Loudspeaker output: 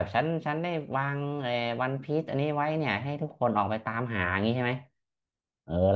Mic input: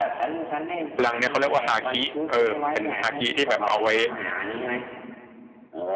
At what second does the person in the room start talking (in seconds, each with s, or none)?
0.9 s